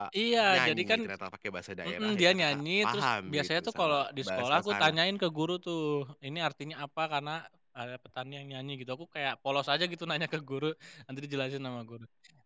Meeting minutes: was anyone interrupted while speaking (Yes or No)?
Yes